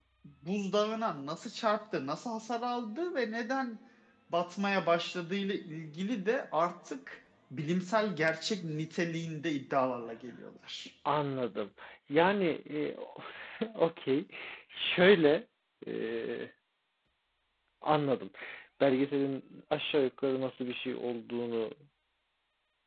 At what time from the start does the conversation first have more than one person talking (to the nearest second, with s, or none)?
none